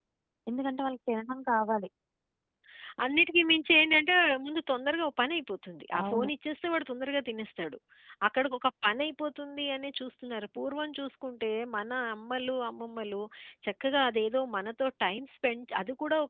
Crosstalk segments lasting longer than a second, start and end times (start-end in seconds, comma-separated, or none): none